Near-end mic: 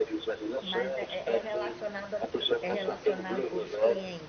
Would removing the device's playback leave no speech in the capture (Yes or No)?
No